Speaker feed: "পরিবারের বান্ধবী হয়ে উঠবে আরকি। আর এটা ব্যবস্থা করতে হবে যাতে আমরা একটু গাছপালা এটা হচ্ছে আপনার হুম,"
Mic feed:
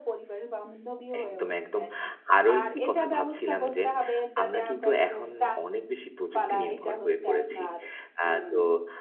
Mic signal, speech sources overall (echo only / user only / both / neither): both